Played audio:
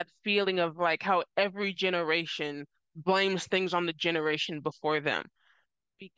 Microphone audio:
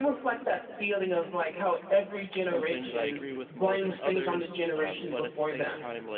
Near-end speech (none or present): present